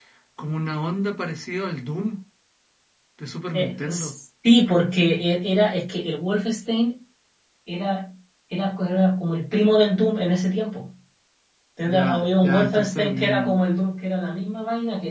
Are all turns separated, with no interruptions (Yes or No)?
No